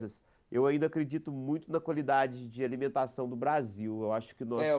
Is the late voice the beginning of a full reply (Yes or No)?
Yes